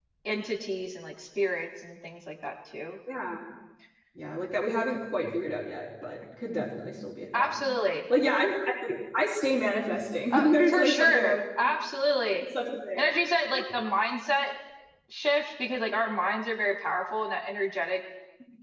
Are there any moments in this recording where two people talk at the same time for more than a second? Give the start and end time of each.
10.3-11.7

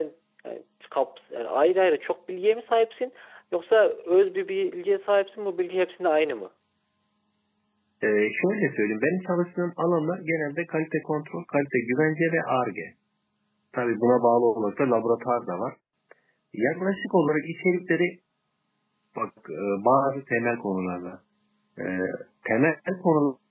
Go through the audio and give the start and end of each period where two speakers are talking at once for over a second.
none

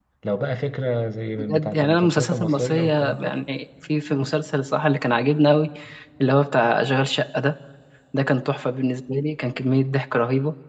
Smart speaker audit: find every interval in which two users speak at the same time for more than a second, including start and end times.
1.4-3.4

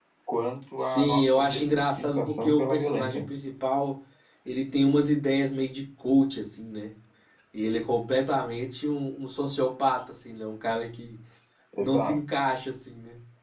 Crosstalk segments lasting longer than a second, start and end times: 0.8-3.3

